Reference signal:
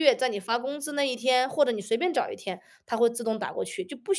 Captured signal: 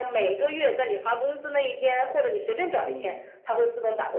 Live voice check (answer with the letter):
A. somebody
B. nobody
A